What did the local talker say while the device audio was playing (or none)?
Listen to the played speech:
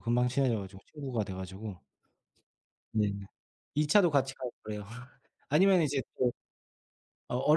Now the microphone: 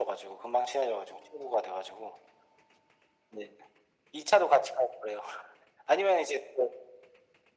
none